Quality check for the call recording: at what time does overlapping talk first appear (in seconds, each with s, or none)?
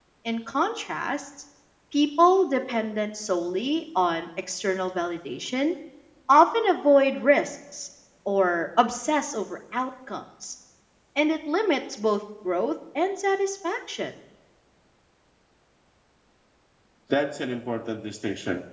none